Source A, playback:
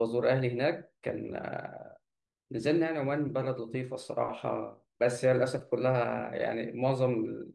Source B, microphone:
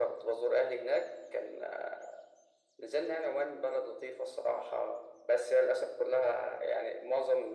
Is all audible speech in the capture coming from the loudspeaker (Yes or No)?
Yes